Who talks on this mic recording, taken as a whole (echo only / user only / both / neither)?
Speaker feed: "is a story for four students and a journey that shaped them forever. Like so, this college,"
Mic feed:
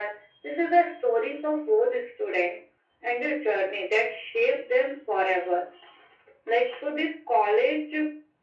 echo only